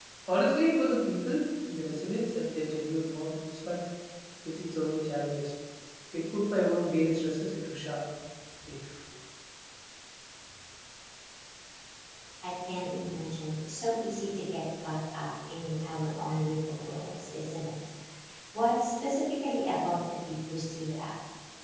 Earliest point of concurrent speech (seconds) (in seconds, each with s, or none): none